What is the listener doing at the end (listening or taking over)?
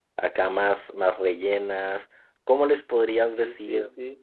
taking over